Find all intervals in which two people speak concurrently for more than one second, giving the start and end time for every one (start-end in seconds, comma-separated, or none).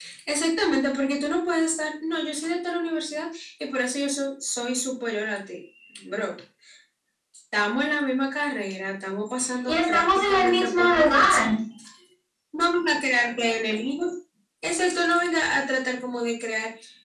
9.7-11.5